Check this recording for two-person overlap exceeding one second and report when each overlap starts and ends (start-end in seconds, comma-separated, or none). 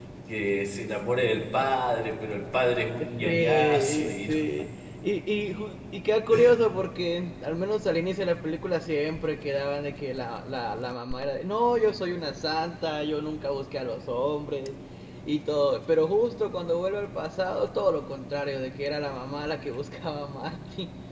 3.2-4.4